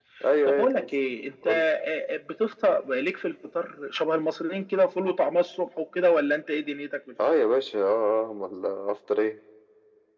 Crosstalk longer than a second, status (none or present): none